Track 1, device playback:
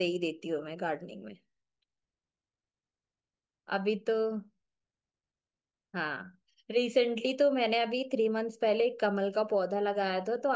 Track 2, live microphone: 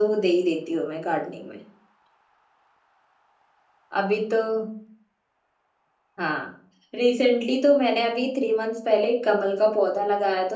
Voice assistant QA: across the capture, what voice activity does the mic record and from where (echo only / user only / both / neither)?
echo only